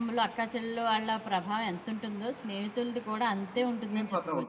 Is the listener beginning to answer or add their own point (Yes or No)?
Yes